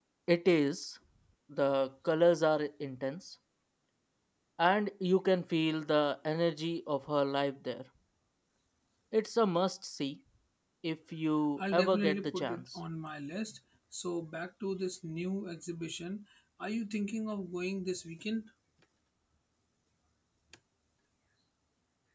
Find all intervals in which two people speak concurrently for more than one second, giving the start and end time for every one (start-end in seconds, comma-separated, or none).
11.6-12.8